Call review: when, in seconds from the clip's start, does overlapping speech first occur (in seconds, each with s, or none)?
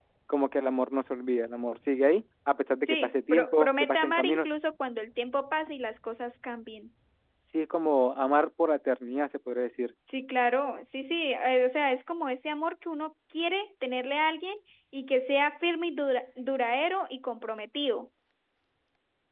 2.8 s